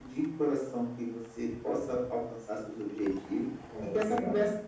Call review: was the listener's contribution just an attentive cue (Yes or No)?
Yes